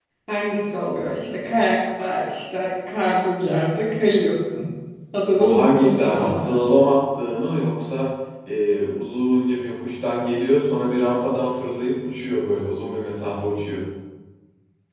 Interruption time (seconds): 5.4 s

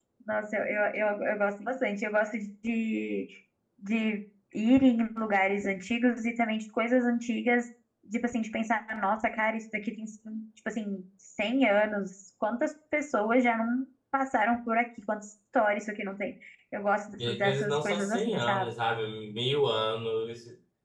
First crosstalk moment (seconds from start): 17.2 s

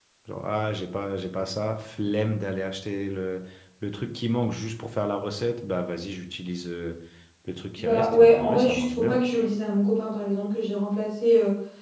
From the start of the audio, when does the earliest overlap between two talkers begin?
7.8 s

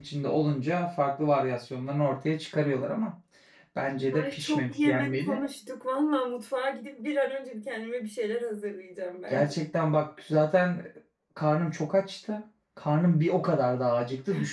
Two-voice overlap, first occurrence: 4.1 s

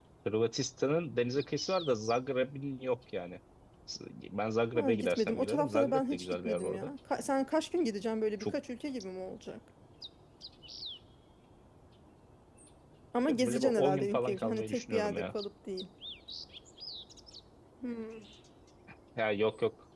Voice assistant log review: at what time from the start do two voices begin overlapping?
4.8 s

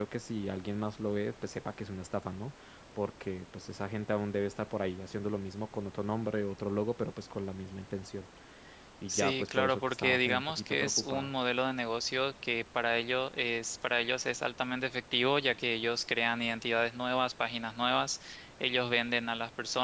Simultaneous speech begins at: 9.1 s

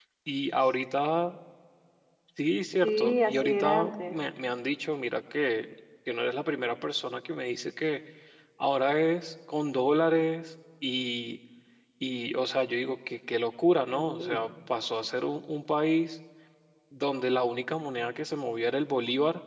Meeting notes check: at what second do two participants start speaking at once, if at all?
2.8 s

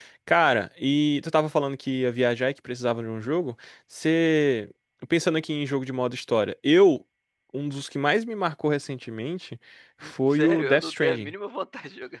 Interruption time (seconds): 10.0 s

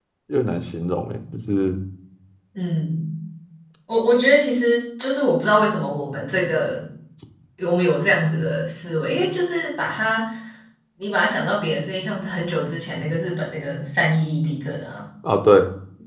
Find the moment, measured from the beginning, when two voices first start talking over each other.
none

